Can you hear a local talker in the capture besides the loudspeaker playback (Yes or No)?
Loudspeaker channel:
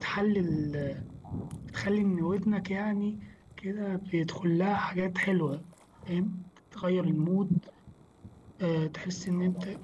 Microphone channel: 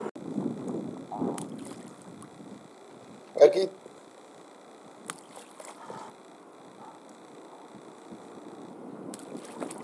Yes